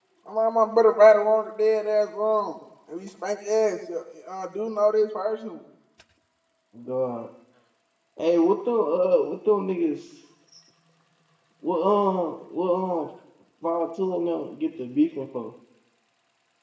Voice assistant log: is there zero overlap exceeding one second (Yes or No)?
Yes